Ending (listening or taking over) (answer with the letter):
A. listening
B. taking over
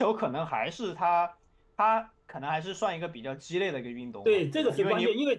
B